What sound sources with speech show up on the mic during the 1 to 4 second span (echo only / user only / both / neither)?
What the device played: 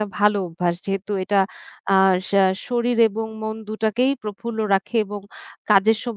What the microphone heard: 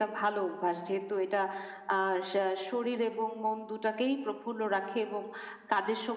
echo only